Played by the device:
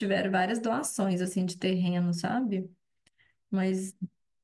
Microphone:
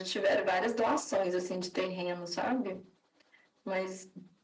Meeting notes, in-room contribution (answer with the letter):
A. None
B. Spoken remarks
A